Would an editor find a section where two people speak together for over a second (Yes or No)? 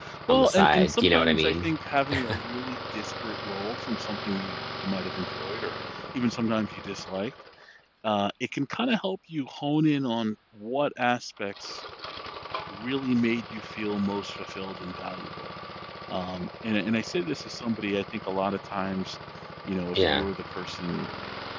Yes